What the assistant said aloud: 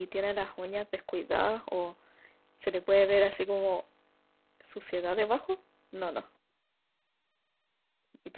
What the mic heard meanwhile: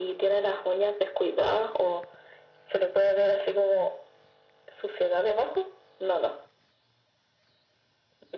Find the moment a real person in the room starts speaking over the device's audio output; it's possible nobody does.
none

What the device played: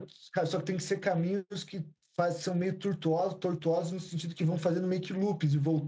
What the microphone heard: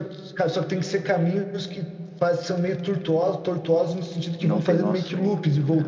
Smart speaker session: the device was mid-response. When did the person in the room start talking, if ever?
4.4 s

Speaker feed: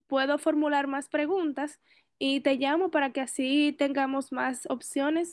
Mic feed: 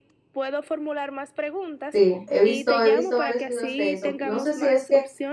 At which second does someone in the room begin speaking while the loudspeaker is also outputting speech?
1.9 s

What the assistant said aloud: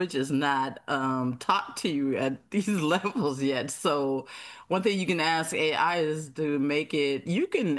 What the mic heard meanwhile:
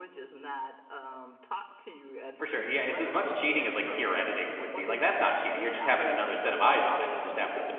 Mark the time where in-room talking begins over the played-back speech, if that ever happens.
2.3 s

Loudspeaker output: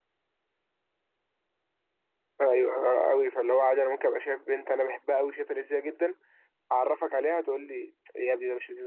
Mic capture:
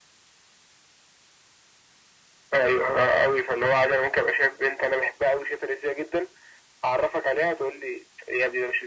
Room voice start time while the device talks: none

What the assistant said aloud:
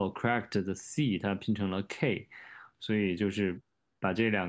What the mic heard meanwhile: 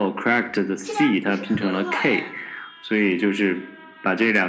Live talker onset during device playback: 0.8 s

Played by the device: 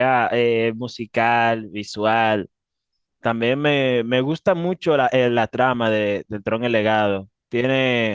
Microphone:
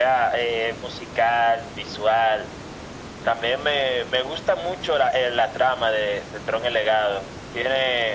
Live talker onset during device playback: none

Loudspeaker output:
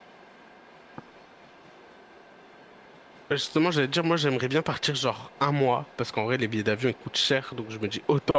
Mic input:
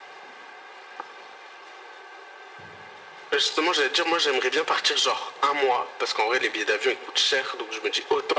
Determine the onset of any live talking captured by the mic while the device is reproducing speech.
none

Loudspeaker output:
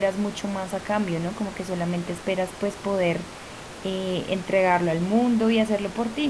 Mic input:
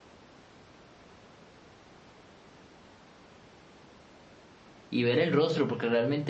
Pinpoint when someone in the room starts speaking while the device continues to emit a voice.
4.9 s

